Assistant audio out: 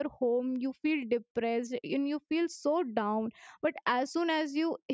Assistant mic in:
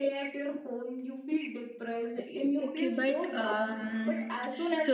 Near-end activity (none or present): present